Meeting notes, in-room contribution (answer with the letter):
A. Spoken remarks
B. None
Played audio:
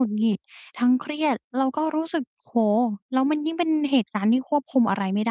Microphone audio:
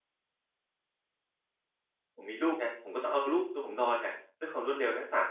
A